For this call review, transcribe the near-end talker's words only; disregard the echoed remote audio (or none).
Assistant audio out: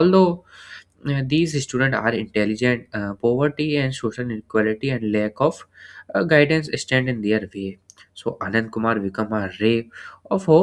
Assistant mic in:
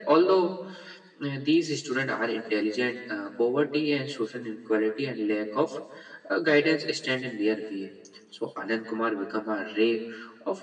none